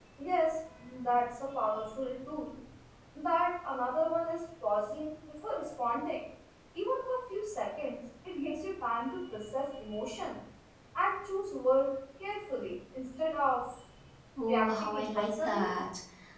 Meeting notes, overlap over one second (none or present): present